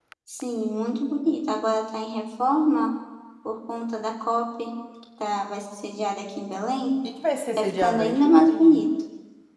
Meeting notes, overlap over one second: present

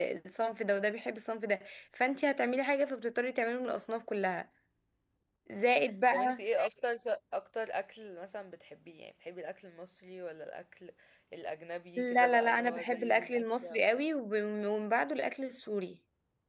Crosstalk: present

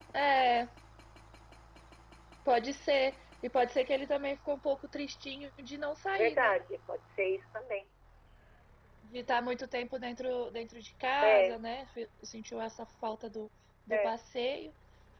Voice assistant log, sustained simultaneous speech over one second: none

